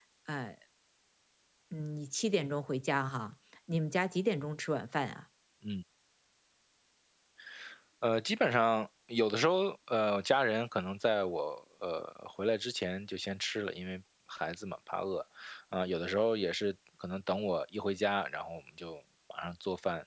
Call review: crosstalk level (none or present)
none